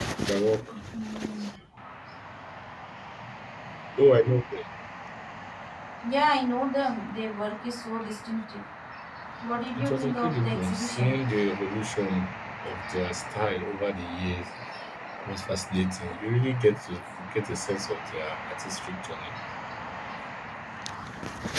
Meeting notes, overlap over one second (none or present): present